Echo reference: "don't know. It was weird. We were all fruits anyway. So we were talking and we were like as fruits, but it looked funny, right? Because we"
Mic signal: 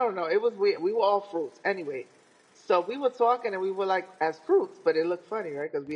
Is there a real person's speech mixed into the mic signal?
No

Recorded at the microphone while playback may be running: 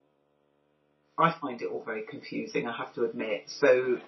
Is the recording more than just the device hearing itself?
Yes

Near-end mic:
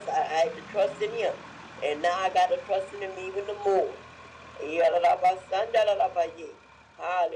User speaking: No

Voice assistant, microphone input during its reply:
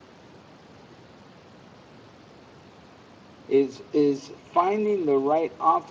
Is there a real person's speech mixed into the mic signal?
Yes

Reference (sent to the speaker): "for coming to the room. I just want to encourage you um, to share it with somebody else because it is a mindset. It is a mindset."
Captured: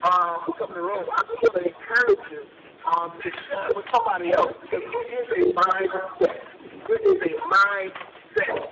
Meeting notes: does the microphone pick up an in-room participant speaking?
No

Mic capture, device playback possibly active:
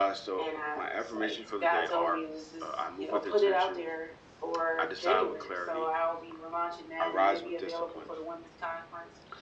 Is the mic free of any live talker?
Yes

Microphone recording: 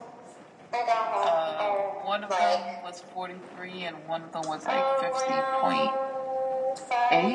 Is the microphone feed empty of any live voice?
No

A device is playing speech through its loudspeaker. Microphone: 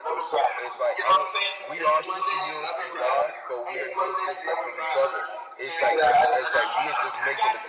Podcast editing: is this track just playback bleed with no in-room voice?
No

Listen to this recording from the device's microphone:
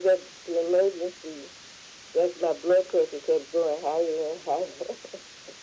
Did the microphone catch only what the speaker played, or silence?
Yes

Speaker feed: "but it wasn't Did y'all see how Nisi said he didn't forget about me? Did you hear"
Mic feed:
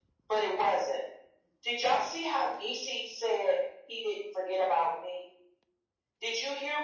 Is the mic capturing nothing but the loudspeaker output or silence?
Yes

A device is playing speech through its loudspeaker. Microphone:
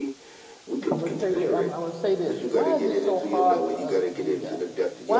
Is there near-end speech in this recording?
Yes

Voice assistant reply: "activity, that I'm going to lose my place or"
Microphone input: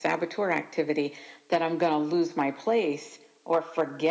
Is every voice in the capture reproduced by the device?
Yes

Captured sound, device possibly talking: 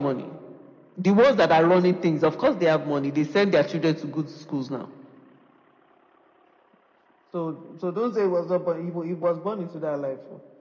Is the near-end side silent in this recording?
Yes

